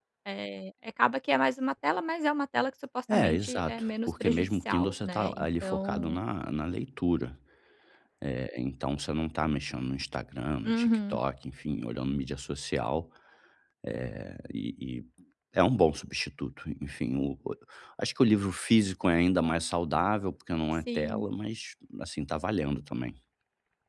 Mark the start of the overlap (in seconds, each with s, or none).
3.1 s